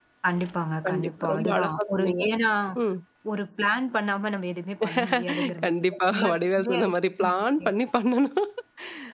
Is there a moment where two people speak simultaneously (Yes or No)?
Yes